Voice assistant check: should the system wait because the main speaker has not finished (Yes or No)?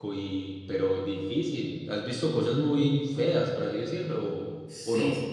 No